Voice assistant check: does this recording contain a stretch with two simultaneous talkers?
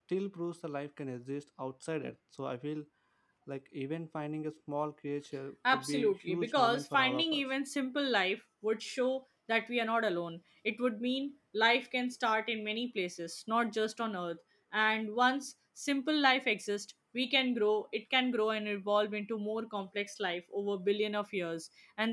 Yes, from 5.7 s

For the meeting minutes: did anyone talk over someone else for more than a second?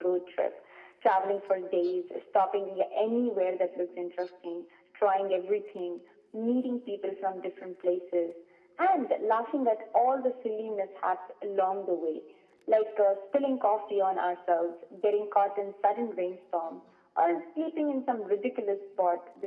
No

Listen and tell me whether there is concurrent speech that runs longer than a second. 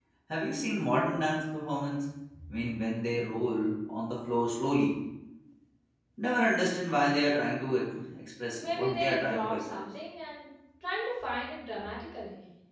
Yes, from 8.5 s

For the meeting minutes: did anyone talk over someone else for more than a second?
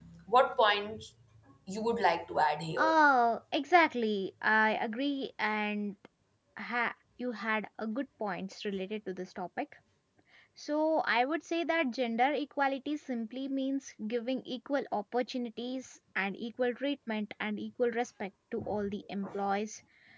No

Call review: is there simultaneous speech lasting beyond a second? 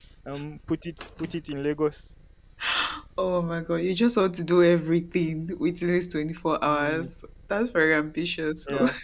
No

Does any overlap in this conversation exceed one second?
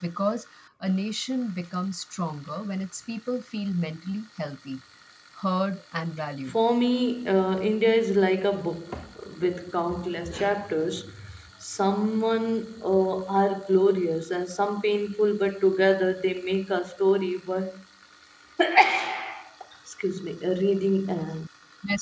No

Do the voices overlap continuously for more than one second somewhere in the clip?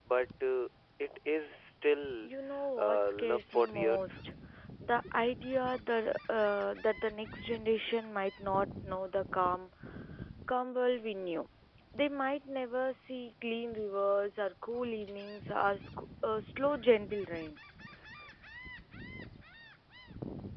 Yes, from 2.8 s

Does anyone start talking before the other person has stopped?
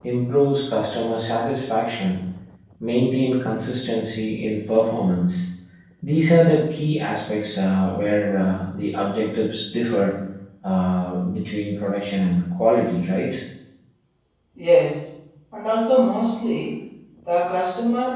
No

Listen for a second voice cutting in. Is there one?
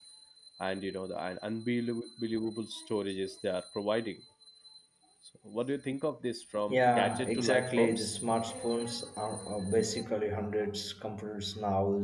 Yes, from 6.7 s

